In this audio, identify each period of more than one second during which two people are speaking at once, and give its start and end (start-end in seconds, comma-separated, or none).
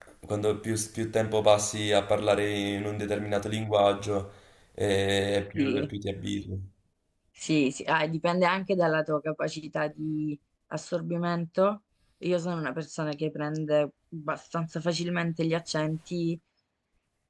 none